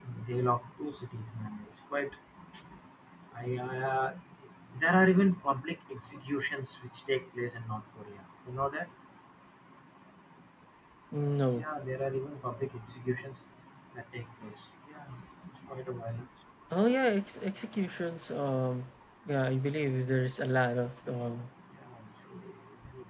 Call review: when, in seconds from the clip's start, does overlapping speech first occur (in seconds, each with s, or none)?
none